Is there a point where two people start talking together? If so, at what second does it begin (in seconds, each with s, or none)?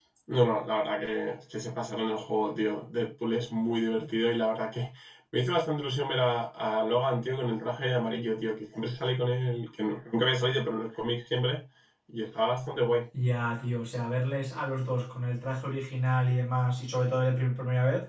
none